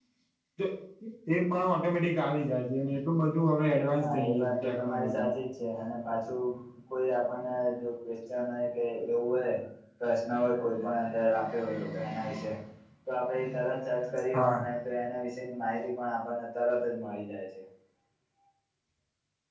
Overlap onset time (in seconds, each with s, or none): 4.0 s